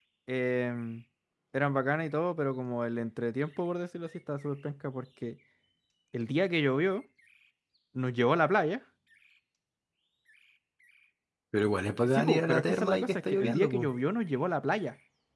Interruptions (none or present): present